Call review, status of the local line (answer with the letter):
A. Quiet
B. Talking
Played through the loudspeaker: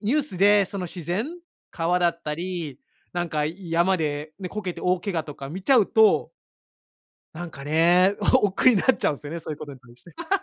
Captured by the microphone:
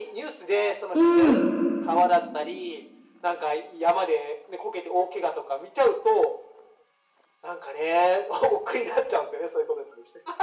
B